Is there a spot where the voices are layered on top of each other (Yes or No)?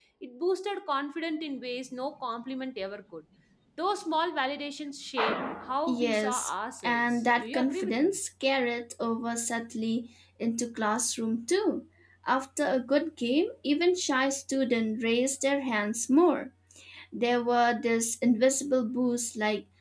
Yes